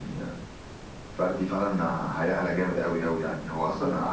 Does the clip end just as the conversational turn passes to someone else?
No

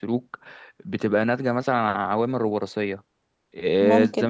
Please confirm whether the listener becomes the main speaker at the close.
Yes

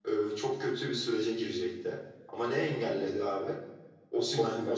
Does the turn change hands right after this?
No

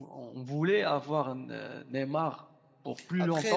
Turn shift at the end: Yes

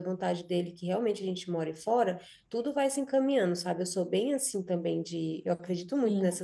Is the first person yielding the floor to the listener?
No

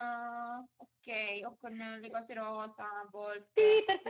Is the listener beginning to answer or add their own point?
Yes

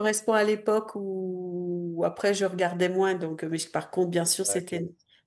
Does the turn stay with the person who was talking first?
Yes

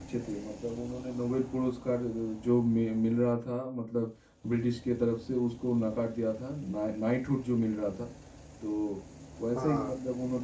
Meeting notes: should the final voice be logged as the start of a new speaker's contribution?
No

